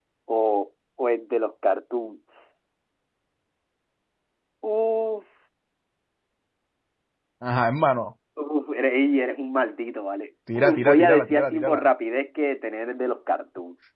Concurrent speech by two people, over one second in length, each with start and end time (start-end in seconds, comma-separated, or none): 10.6-11.8